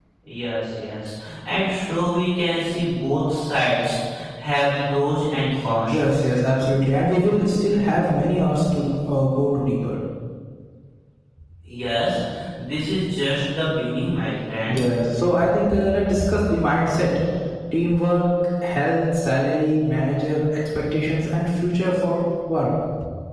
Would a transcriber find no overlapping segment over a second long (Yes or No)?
Yes